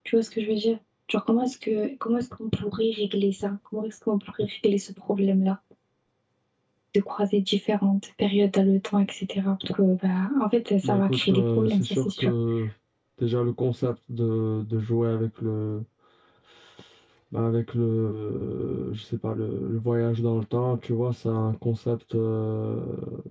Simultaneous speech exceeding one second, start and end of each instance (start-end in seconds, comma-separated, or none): 10.8-12.3